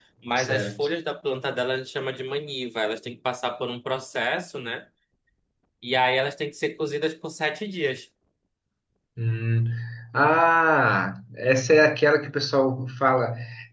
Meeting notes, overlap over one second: none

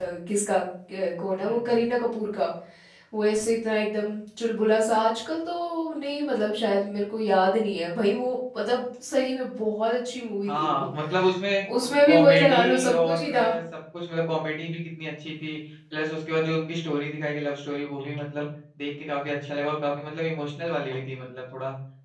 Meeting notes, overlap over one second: present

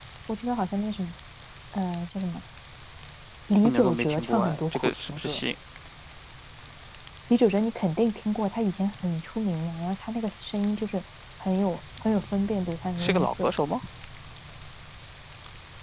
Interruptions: present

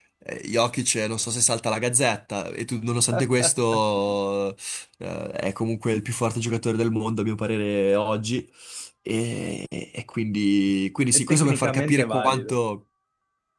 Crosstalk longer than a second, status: present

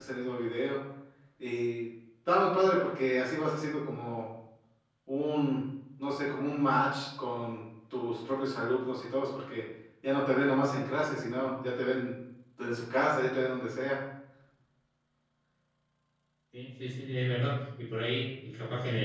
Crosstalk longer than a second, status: none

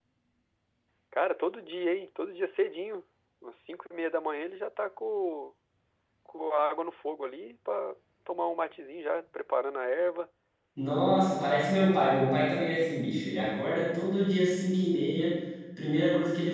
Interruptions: none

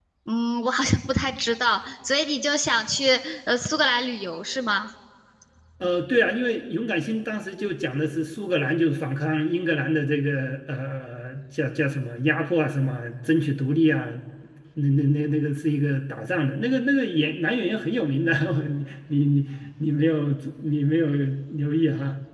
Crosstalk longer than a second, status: none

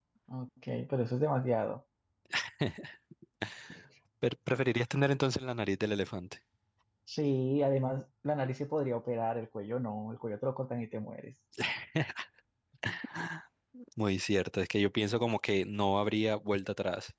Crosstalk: none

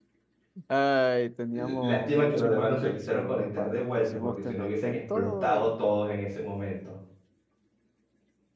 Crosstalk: present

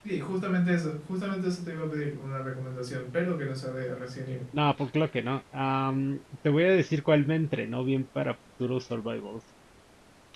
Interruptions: none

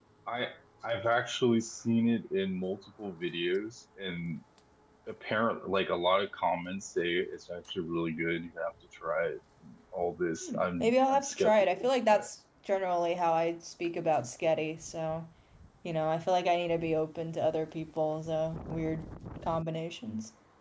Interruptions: present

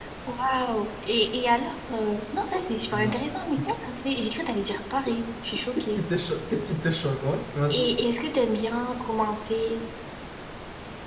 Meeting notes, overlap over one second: none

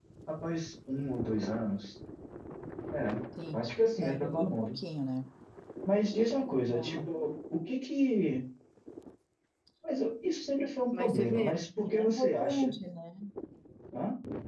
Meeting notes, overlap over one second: present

